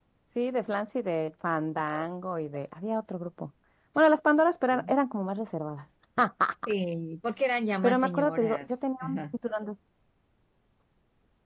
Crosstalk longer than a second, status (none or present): present